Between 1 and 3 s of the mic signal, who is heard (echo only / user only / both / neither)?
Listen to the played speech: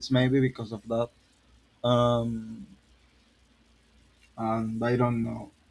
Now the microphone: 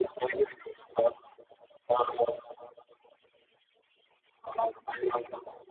echo only